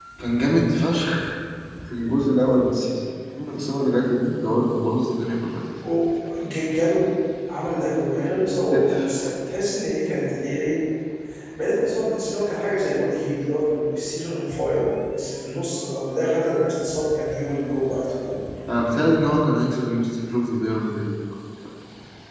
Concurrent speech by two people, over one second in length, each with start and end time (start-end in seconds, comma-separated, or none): none